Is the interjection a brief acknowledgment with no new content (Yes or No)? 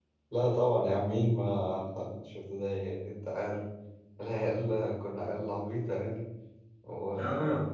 Yes